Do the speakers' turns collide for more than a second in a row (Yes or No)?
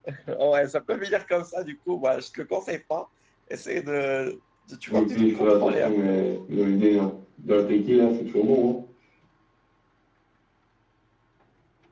Yes